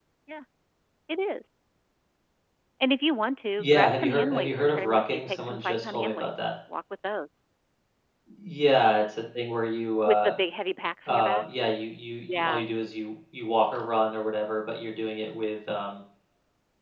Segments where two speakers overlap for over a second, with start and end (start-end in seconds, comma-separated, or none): 3.6-6.3